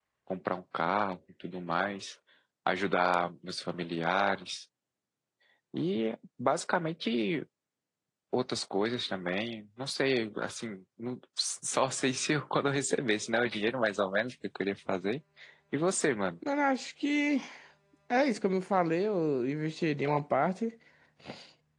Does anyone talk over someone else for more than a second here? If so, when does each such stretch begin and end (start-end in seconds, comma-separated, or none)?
none